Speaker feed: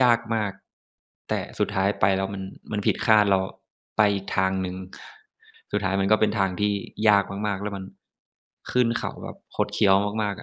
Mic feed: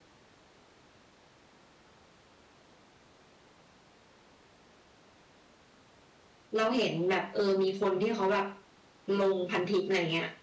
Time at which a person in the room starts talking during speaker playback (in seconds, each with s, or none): 6.6 s